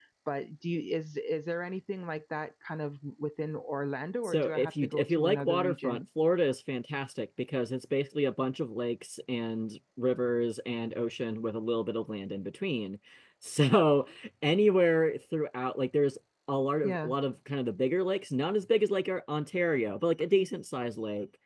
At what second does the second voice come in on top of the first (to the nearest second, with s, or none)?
4 s